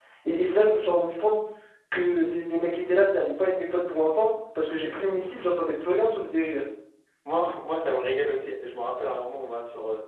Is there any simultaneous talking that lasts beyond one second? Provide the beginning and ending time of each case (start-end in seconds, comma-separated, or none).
none